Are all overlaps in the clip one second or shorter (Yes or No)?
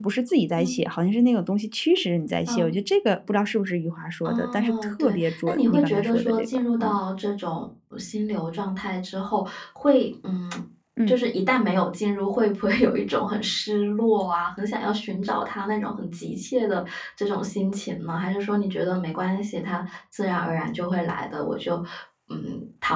No